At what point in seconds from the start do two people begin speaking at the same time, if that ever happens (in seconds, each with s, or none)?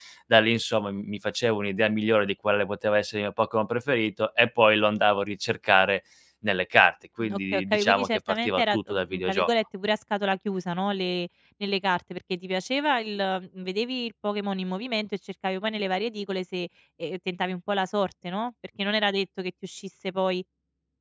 7.2 s